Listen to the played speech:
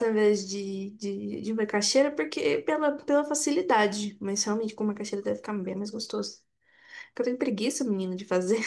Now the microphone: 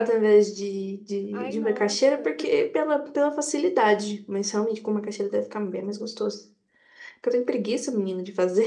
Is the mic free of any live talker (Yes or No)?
No